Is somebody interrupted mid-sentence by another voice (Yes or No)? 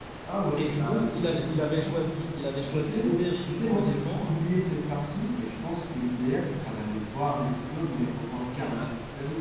Yes